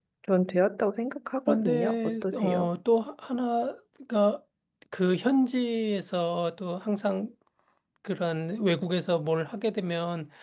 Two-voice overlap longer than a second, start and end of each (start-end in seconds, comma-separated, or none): 1.5-2.7